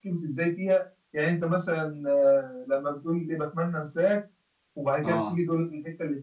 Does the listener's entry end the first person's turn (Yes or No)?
No